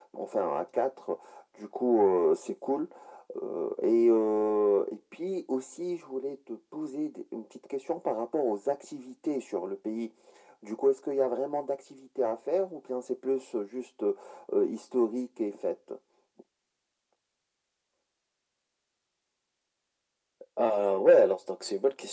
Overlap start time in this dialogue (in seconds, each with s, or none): none